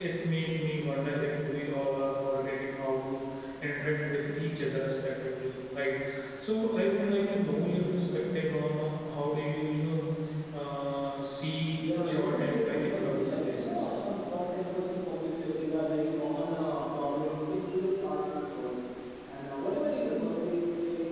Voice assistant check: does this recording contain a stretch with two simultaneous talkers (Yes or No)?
Yes